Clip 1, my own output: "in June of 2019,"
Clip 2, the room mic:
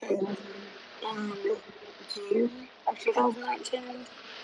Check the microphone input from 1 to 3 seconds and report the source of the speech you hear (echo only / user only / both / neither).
echo only